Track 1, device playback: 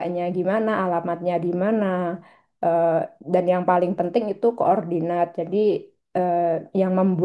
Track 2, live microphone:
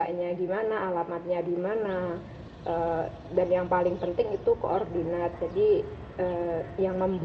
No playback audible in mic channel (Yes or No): No